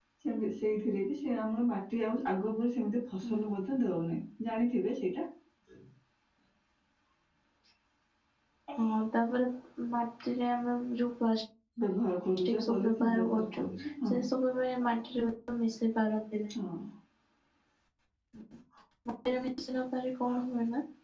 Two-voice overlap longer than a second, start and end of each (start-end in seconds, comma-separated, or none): 12.4-13.6